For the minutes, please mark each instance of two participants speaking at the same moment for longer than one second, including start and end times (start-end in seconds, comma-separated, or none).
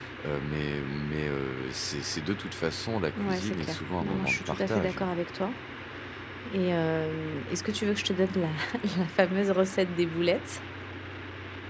3.2-5.1